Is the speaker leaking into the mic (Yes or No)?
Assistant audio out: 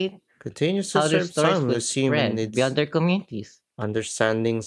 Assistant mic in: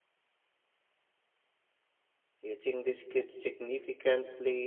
No